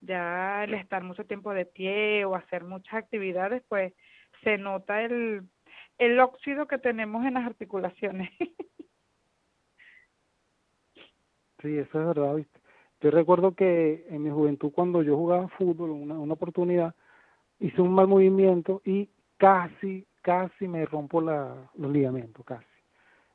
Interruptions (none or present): none